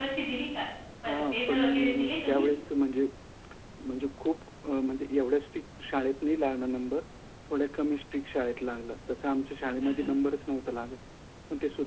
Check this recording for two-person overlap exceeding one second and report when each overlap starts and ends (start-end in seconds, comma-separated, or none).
1.1-2.4